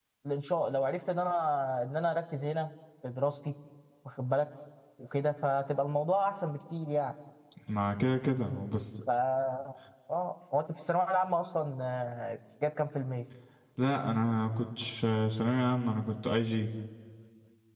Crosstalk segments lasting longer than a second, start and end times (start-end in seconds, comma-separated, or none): none